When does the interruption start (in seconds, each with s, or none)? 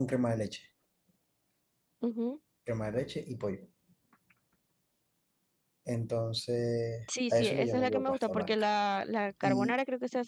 7.3 s